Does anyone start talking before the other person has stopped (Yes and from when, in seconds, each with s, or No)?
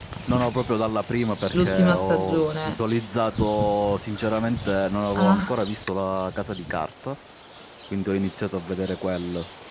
Yes, from 1.6 s